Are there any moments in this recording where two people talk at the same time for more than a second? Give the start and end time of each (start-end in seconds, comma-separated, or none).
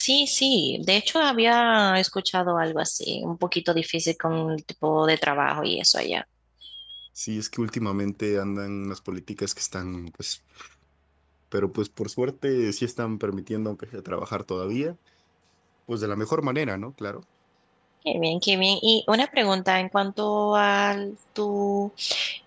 none